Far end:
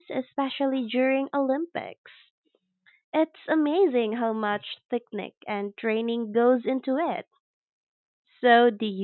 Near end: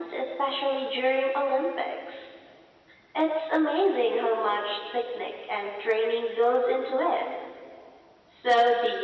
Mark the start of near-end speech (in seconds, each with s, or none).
none